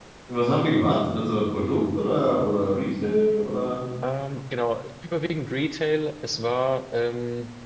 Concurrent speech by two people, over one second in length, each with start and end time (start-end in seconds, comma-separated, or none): none